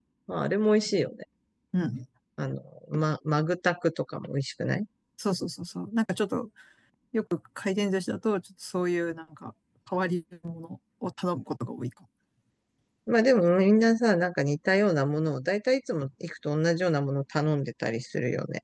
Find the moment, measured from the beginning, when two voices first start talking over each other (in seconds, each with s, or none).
none